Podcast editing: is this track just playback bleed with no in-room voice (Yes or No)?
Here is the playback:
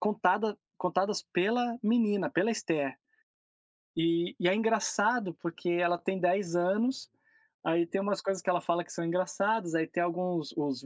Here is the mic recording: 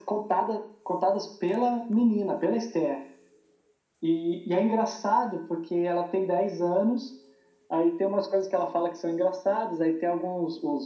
Yes